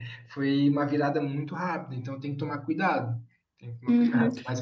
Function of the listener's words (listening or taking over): taking over